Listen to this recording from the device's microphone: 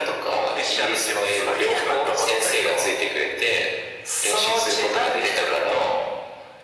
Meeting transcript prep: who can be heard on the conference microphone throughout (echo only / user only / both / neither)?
echo only